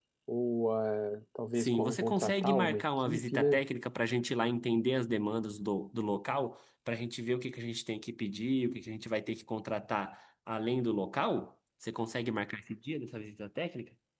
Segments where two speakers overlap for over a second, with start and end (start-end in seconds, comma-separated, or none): 1.5-3.6